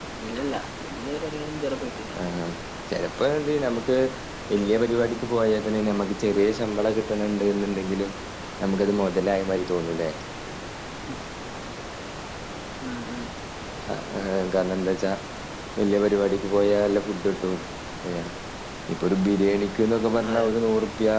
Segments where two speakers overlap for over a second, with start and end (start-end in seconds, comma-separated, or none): none